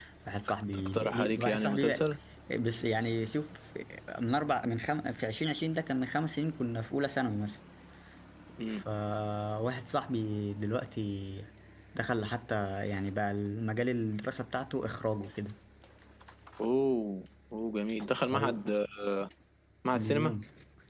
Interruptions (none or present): present